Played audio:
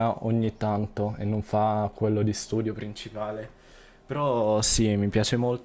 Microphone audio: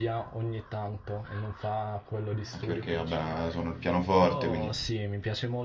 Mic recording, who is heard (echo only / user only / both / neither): both